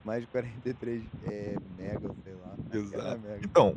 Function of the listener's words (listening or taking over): taking over